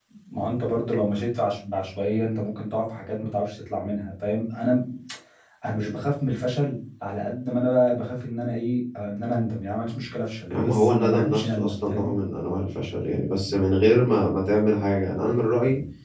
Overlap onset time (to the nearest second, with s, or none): 11 s